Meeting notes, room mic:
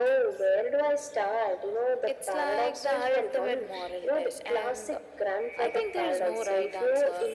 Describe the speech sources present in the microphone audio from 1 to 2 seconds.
echo only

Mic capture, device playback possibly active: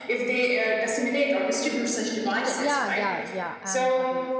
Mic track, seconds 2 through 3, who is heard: both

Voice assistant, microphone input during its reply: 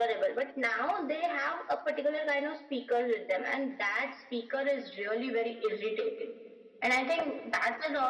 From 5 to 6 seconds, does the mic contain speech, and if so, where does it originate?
echo only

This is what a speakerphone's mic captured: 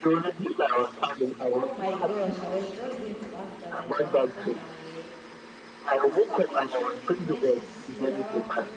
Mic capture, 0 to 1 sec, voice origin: echo only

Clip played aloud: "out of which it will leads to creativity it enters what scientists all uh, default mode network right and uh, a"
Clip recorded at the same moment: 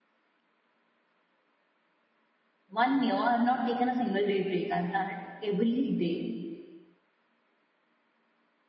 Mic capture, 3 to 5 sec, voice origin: user only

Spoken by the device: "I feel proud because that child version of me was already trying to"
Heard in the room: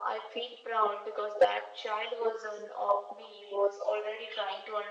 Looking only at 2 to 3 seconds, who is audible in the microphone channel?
echo only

